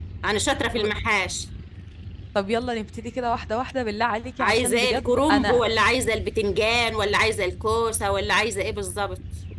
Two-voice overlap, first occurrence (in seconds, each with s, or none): 4.4 s